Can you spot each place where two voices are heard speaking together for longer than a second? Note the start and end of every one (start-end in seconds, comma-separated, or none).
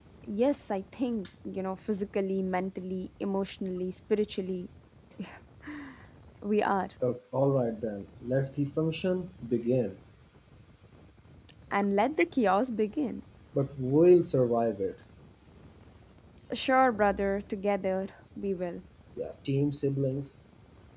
none